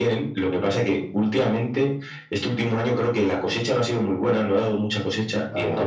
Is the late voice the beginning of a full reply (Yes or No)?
No